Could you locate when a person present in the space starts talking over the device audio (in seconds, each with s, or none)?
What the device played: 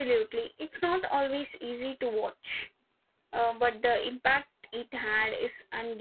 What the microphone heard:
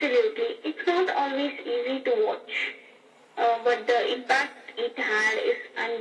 none